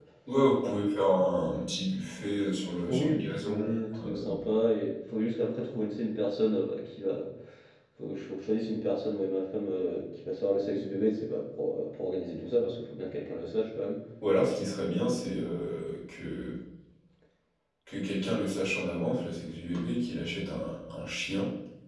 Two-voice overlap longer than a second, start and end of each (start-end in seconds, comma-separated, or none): 2.9-4.2